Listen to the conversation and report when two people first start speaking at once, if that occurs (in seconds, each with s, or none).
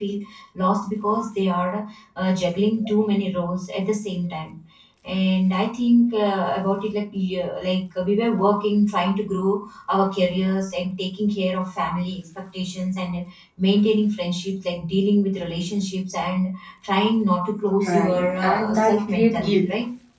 17.8 s